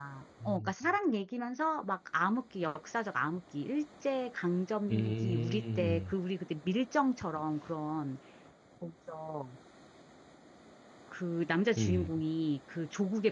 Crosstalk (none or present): present